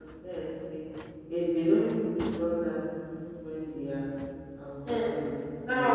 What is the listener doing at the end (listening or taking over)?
taking over